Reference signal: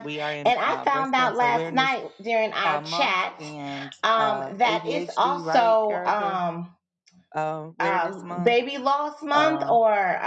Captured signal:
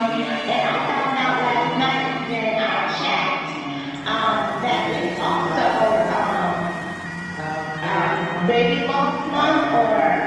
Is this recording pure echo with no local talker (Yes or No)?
Yes